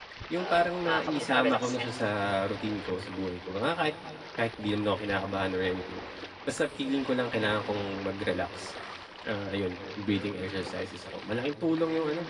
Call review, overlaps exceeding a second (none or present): present